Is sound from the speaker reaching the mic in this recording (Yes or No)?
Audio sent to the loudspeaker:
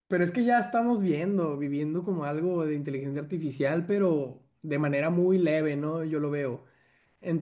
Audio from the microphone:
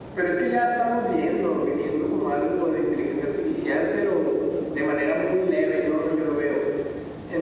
Yes